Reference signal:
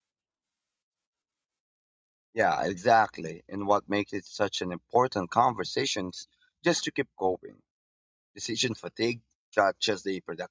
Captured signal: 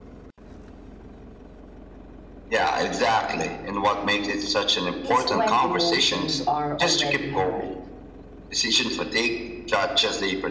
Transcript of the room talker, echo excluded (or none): it's when emotions are already high.